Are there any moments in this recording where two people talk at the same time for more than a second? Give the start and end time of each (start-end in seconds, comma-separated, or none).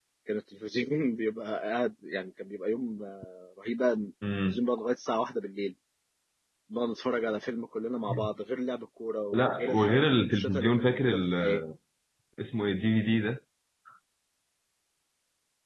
9.3-11.6